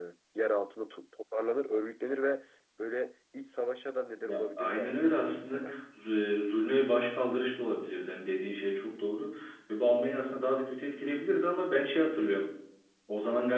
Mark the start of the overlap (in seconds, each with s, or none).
4.2 s